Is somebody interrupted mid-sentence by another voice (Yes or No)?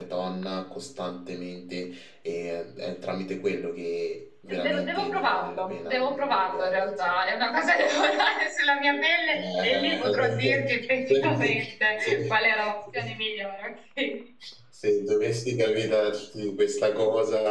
Yes